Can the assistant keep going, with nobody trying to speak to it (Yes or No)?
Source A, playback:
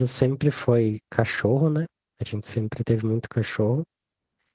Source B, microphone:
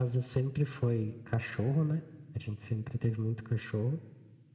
Yes